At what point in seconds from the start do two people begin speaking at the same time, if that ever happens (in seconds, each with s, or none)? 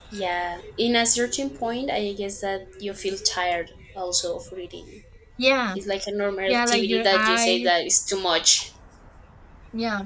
6.5 s